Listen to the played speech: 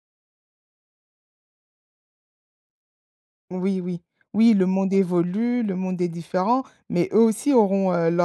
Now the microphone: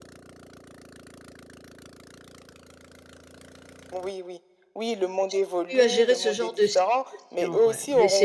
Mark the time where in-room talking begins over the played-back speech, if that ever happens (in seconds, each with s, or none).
5.3 s